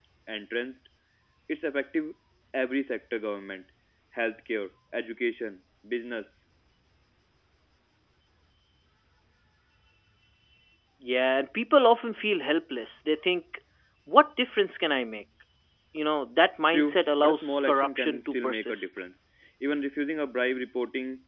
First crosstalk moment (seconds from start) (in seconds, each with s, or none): 16.7 s